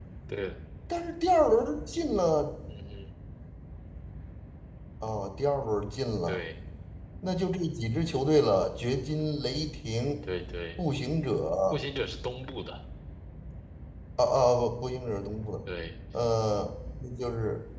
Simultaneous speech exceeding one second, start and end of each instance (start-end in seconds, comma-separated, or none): none